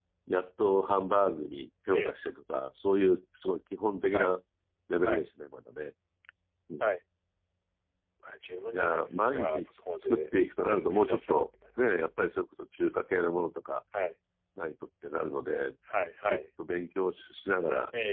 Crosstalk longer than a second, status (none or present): present